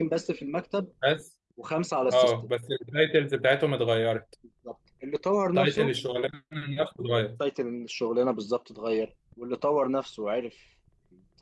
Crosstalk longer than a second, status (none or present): none